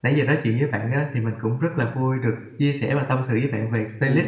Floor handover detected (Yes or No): Yes